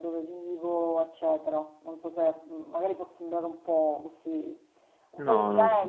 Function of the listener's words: listening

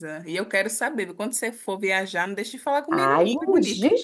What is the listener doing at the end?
taking over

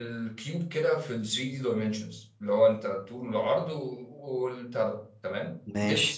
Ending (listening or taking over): listening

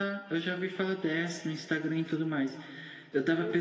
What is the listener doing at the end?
listening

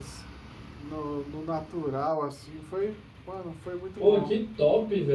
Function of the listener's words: taking over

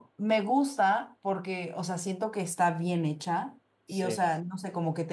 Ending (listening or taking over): listening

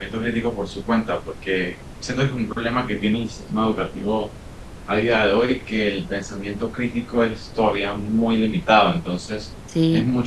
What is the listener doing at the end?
listening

